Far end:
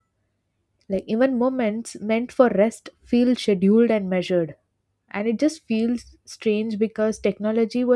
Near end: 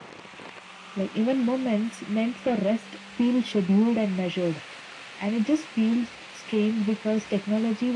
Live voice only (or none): none